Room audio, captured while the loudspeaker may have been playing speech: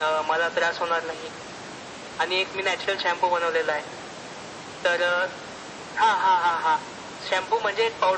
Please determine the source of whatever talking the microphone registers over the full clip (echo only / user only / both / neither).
echo only